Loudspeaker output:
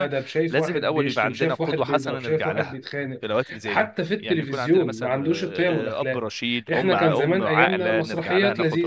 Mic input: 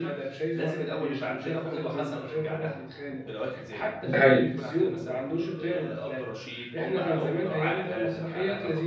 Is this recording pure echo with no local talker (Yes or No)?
No